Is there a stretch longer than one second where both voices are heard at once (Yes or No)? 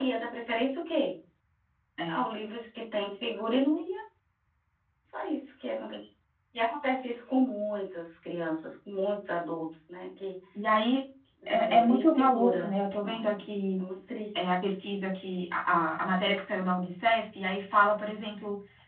Yes